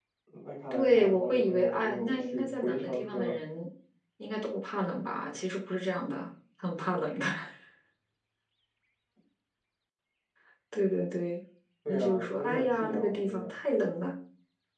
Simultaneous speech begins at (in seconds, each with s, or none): 0.7 s